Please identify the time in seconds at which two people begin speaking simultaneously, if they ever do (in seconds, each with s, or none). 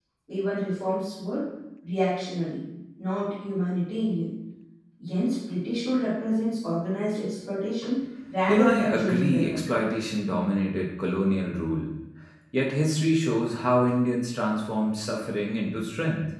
8.5 s